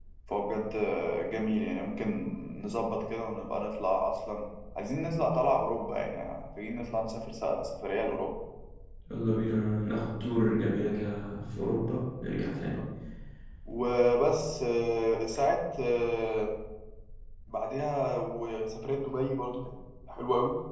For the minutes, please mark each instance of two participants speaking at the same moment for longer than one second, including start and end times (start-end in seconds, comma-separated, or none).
none